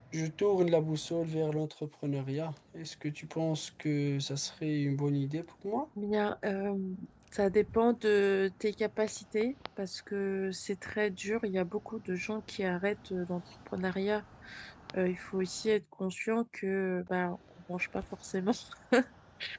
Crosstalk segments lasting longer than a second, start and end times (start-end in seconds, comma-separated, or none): none